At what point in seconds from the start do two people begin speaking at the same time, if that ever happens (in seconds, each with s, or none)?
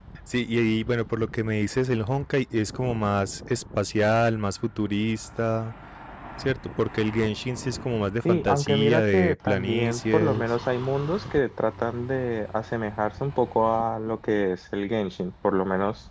8.2 s